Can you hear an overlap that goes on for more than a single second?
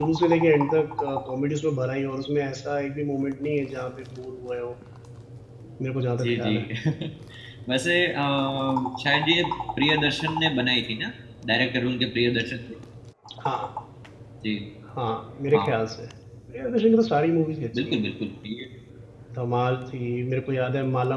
No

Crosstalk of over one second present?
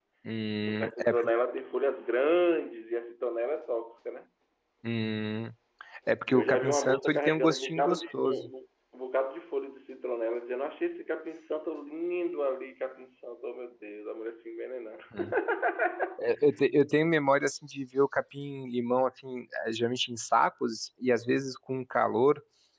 Yes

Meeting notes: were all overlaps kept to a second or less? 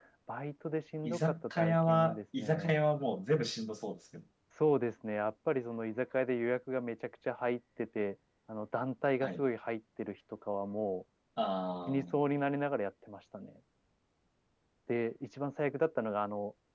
No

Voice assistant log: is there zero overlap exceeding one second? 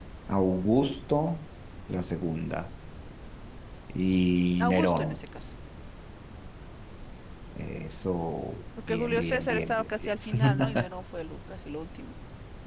No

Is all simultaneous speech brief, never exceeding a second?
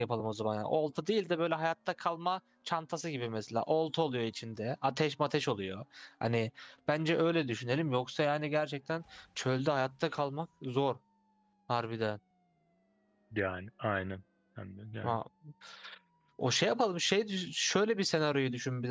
Yes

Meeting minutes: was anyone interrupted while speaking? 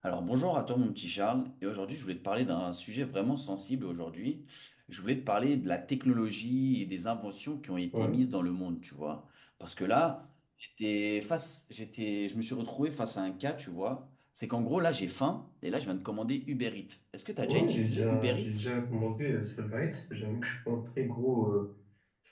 Yes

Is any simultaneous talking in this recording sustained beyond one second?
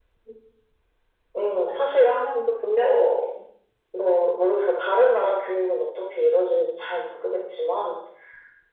No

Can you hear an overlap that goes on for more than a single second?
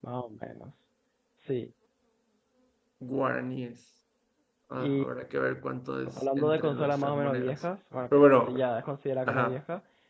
Yes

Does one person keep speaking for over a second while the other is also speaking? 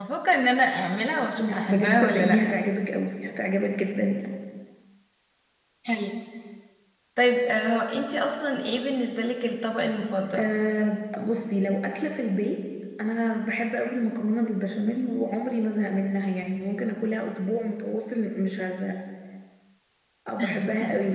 Yes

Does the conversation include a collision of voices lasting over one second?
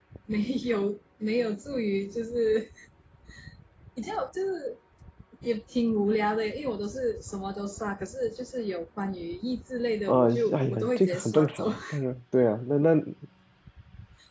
Yes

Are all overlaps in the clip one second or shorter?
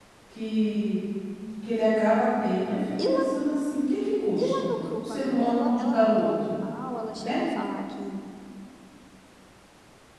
No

